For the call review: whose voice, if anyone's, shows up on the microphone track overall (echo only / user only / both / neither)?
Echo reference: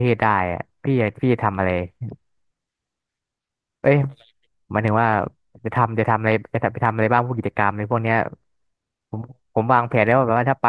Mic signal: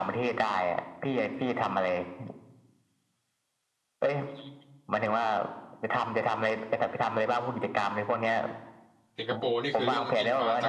both